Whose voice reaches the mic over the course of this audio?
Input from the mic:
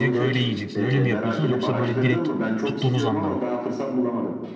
both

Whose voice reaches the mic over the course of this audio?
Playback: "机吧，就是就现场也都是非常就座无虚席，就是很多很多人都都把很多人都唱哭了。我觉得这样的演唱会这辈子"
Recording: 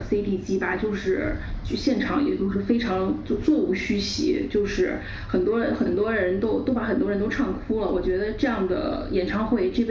echo only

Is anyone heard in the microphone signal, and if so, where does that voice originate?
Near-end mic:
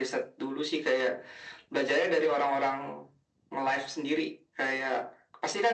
echo only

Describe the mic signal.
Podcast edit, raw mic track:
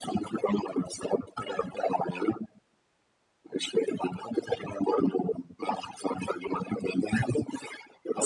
echo only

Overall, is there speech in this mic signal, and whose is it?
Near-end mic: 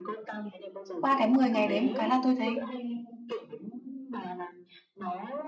both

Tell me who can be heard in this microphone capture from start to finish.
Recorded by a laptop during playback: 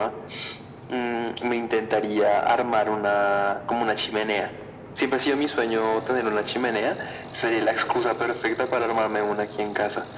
echo only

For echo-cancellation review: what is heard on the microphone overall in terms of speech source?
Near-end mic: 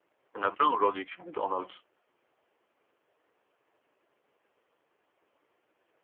user only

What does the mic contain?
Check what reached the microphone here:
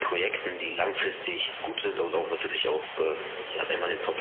both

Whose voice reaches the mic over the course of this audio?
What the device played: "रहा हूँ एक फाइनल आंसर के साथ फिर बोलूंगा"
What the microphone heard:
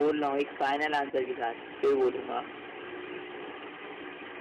echo only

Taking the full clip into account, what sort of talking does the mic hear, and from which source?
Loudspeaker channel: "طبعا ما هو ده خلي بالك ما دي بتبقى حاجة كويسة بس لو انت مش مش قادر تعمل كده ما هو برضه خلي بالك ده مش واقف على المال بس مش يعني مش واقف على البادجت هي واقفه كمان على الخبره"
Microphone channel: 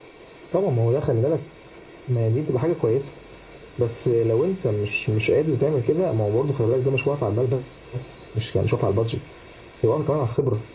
echo only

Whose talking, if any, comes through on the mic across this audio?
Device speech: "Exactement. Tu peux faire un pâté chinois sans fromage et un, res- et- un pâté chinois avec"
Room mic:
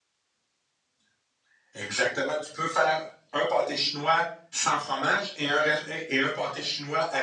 echo only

